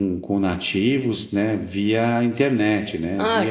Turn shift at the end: Yes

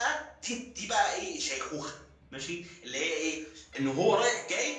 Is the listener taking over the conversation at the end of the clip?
No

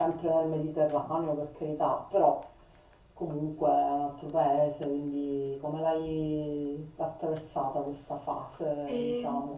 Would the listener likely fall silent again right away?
No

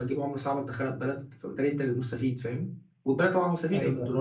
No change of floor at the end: Yes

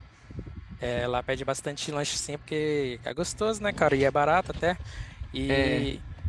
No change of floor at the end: Yes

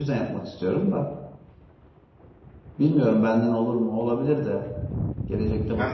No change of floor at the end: No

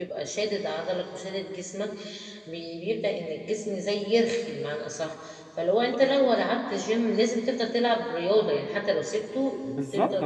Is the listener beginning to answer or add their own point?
Yes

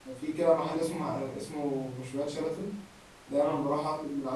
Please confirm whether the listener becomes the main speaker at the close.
No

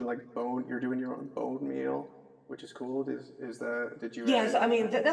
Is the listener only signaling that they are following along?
No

